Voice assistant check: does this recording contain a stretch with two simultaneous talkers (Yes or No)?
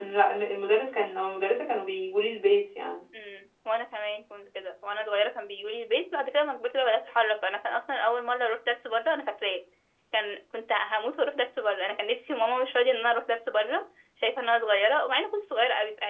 No